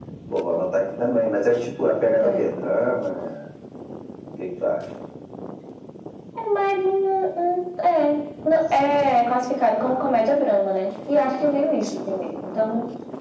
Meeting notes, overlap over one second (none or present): none